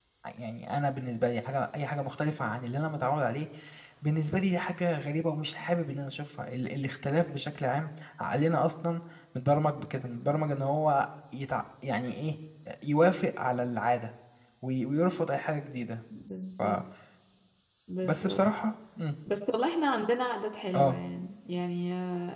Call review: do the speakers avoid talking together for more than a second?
Yes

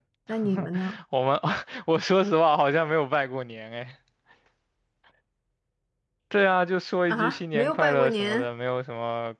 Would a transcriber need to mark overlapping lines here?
Yes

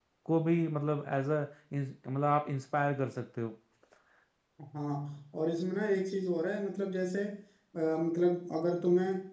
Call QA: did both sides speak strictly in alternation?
Yes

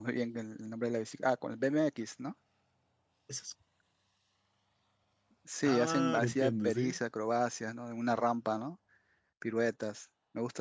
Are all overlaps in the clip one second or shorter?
No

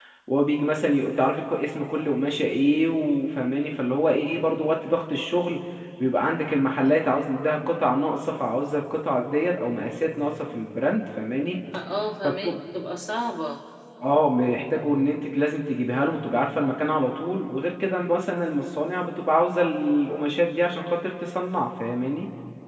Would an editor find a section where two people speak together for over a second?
No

